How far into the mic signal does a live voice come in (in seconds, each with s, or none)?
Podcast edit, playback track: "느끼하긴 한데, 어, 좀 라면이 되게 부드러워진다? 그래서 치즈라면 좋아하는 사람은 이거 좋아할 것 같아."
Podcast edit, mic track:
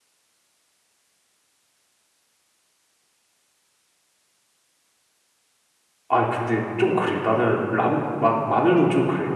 6.1 s